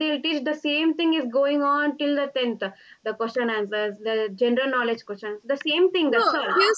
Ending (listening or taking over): taking over